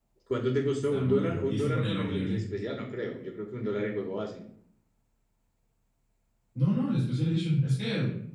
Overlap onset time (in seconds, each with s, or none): 0.8 s